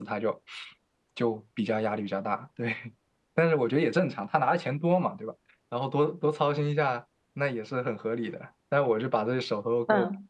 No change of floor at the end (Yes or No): No